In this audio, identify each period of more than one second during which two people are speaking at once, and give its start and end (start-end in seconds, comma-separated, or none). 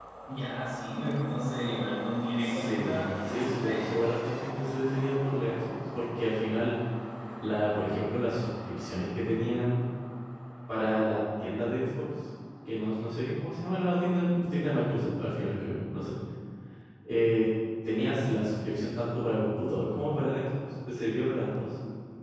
2.4-4.1